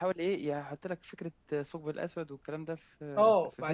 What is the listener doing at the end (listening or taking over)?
taking over